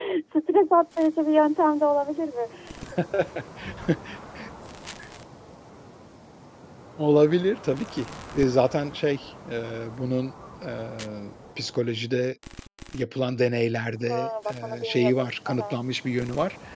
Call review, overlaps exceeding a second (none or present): present